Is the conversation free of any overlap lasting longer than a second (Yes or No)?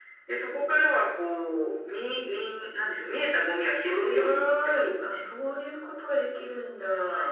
No